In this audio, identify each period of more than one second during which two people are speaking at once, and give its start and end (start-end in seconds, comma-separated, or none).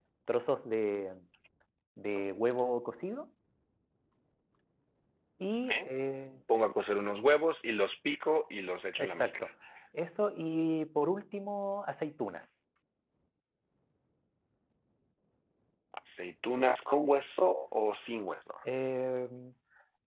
none